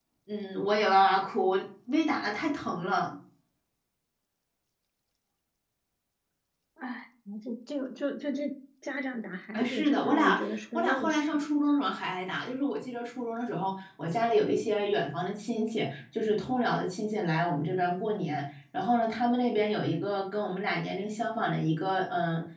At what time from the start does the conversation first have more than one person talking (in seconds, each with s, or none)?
9.5 s